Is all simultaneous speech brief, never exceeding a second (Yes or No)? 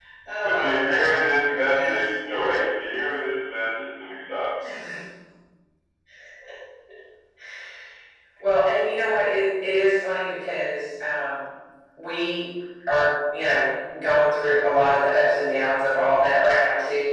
No